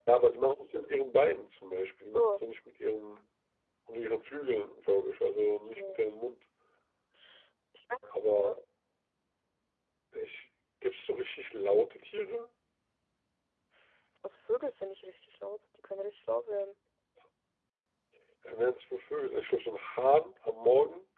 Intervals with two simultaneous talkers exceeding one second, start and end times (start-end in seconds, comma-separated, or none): none